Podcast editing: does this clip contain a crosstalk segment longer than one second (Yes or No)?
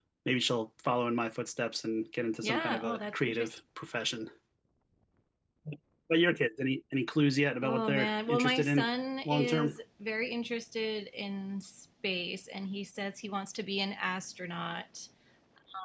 Yes